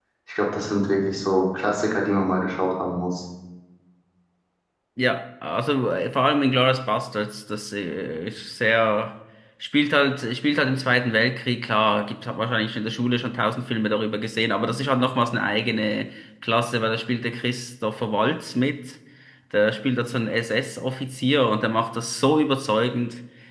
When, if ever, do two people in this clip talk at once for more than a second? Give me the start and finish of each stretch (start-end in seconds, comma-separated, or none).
none